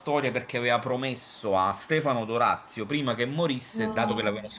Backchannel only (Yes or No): Yes